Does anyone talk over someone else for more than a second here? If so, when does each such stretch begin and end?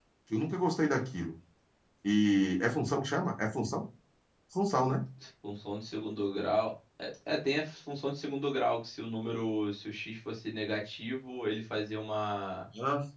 none

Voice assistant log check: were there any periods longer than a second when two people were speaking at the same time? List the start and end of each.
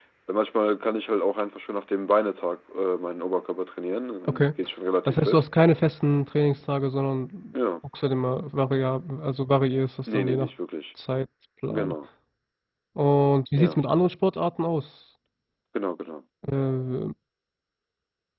none

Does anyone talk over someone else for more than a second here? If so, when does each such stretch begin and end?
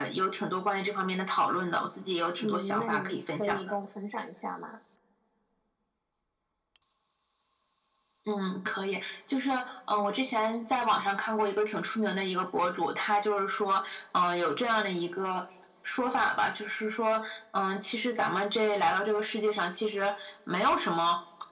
2.4-3.6

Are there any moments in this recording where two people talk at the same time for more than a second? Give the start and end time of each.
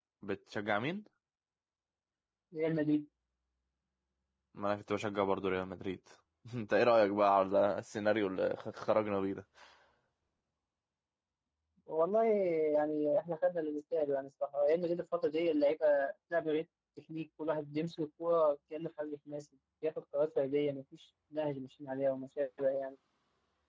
none

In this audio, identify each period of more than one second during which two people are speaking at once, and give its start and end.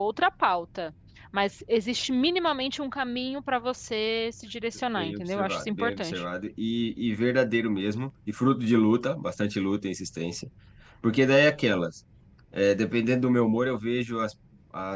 5.0-6.2

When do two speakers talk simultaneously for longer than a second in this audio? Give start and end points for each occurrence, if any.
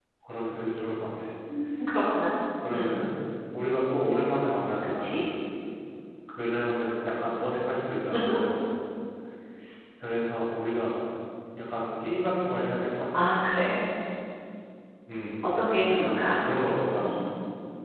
none

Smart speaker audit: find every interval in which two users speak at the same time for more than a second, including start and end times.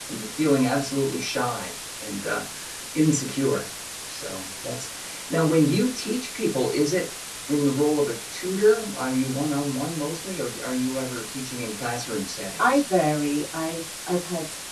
none

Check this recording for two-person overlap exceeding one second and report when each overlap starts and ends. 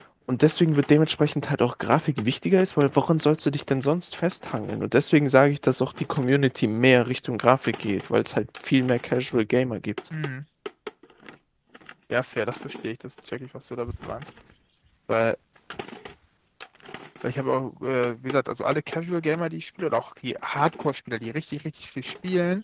none

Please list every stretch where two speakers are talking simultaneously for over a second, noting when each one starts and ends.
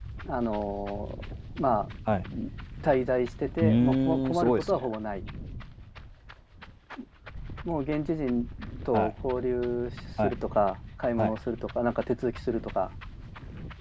3.6-4.9

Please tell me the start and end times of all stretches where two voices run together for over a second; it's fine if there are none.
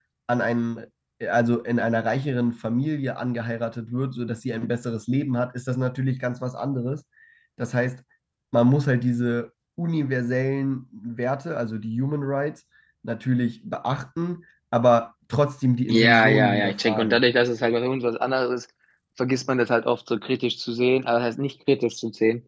15.9-17.2

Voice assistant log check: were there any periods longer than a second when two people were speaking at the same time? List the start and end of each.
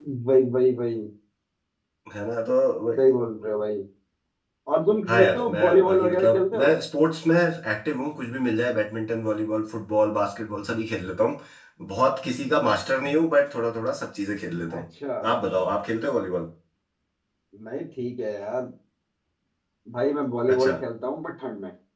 5.1-6.7

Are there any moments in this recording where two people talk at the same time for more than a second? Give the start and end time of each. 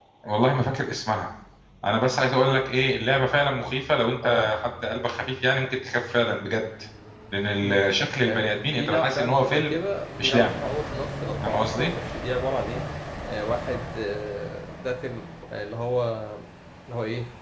8.2-9.8

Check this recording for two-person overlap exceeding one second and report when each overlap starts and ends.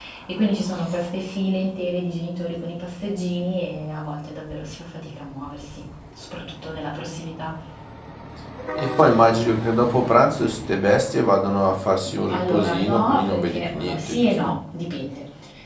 12.3-14.6

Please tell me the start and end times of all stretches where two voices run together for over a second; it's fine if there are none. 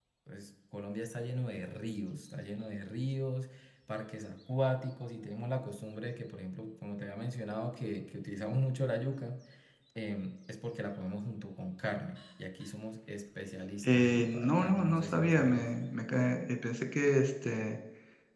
13.8-15.7

